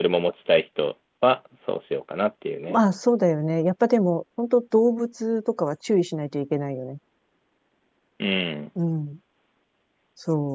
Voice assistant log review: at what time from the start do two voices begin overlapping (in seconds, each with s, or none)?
none